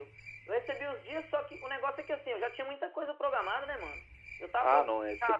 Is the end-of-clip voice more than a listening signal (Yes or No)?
Yes